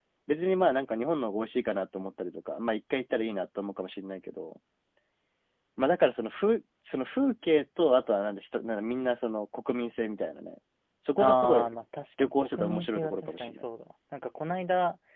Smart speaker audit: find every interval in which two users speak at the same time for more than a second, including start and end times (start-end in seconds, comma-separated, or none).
12.2-13.6